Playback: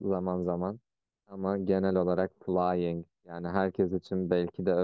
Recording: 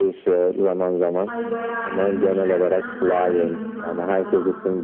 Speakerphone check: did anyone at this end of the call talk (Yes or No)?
Yes